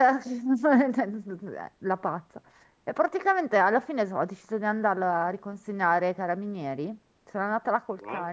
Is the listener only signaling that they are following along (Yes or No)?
Yes